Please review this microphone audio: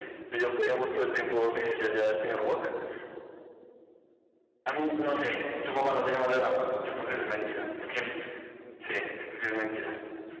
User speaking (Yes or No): No